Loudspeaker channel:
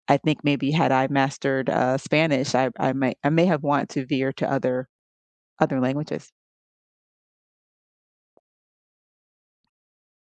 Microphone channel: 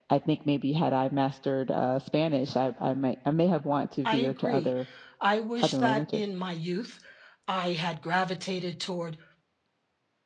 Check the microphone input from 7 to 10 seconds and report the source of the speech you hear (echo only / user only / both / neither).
user only